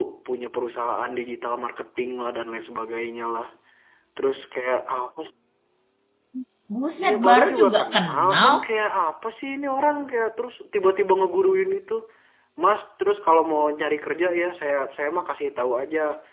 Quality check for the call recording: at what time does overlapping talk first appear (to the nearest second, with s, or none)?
7 s